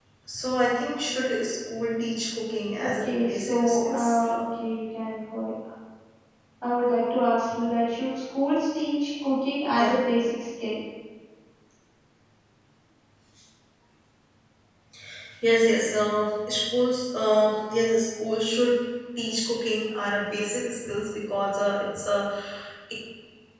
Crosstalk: present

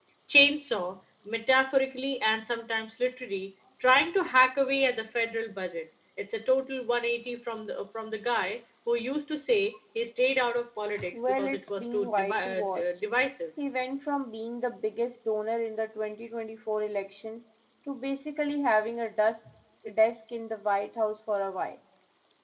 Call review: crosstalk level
present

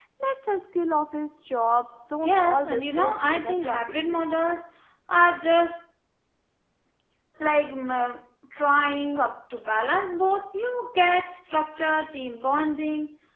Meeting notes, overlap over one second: present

